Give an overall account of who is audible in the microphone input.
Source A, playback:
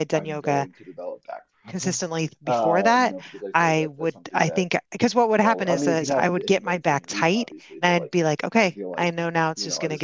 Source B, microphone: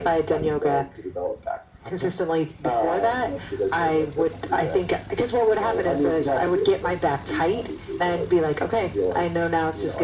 echo only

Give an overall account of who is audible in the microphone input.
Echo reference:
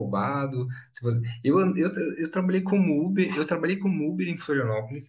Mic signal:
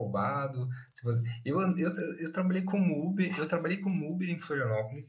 echo only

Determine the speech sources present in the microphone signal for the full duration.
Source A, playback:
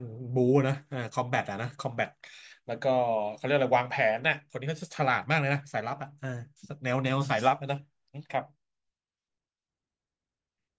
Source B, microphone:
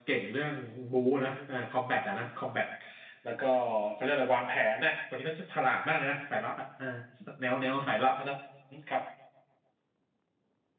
echo only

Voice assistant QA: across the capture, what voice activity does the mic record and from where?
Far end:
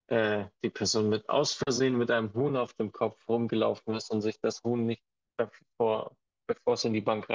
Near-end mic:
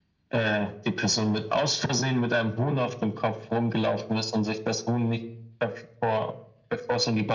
echo only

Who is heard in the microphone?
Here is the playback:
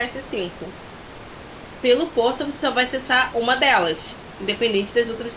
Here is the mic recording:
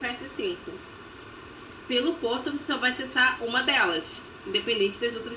echo only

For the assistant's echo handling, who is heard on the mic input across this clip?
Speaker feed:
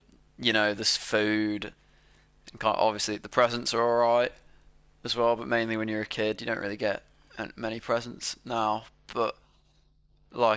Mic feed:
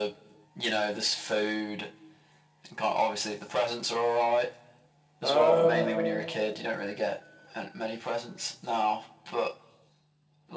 both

